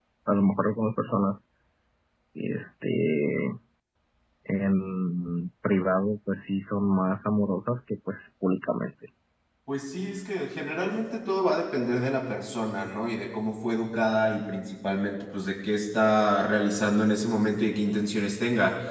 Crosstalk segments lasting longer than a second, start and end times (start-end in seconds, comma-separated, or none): none